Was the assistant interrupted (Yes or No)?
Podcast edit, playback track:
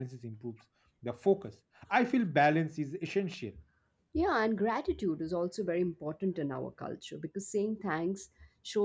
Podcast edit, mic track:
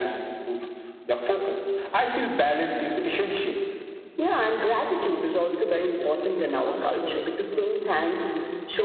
Yes